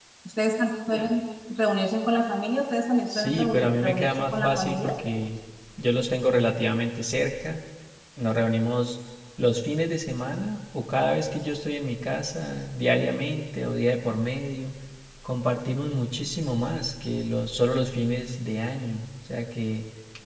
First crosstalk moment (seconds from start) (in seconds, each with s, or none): 3.1 s